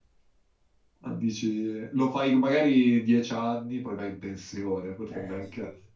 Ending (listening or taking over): listening